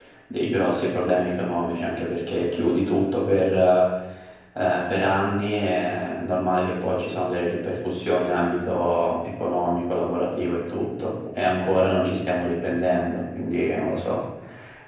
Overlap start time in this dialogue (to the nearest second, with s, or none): none